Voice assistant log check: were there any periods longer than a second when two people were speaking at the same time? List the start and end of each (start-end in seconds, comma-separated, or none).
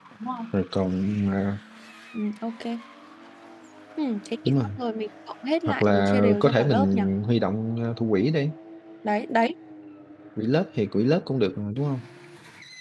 5.7-7.0